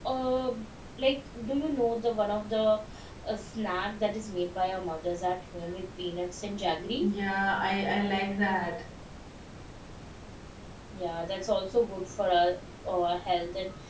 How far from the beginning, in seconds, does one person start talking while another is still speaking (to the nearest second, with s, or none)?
none